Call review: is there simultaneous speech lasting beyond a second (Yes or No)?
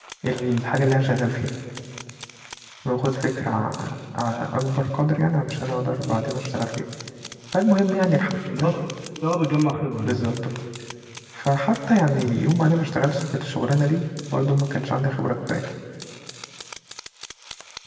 No